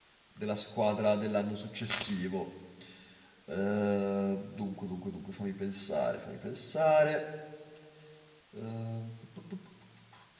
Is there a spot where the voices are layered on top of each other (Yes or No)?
No